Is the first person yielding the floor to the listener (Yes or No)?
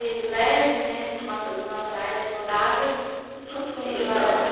Yes